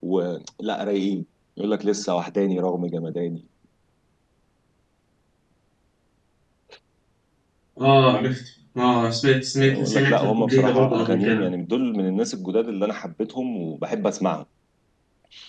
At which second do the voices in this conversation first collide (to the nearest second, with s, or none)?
10 s